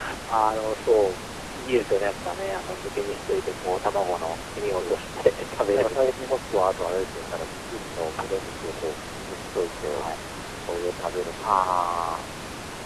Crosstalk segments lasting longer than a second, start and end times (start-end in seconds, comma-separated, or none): none